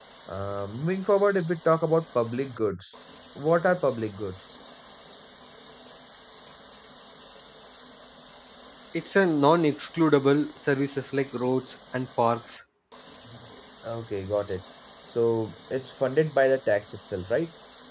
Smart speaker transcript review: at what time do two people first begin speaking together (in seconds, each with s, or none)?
none